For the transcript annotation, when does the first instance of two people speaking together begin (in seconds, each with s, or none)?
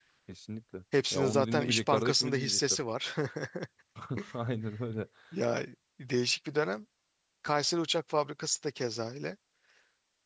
1.1 s